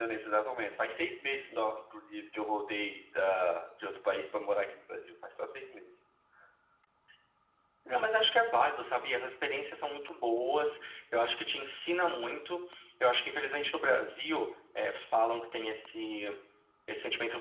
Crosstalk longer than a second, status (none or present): none